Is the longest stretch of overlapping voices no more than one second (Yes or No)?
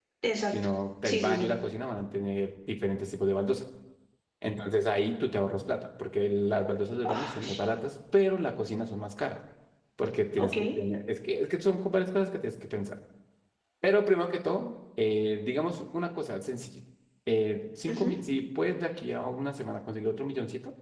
Yes